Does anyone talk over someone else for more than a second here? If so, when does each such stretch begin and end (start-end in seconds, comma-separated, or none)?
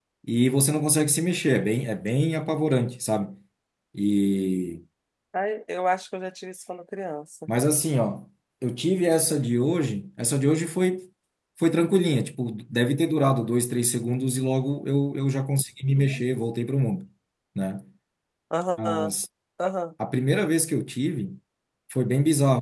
none